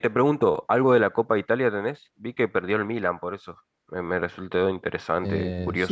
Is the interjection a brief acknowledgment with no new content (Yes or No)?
No